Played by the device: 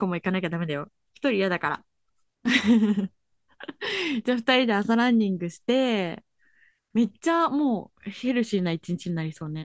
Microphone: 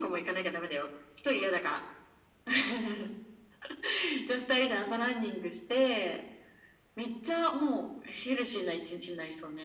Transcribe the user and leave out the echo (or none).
none